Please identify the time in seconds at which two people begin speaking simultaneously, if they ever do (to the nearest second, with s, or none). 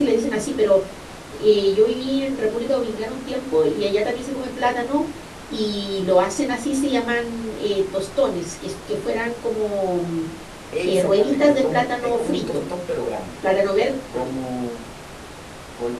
11 s